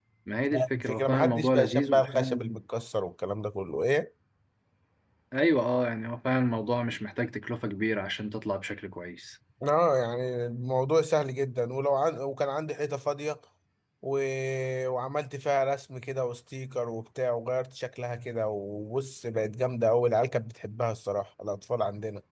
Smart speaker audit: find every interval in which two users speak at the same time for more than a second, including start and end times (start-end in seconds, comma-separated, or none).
0.8-2.4